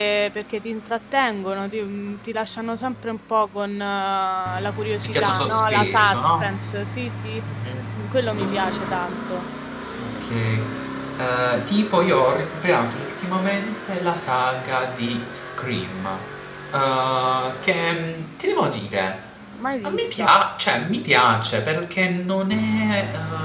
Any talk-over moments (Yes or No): Yes